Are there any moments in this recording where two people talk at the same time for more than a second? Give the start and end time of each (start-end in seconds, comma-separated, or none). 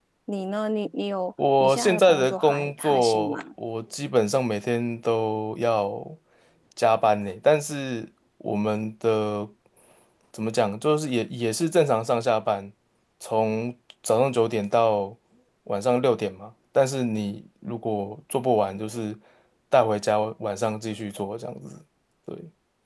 1.6-3.4